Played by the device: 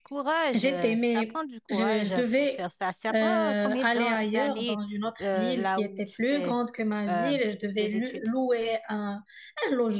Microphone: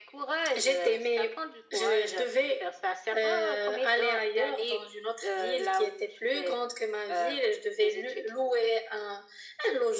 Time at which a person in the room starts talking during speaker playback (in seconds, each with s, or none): none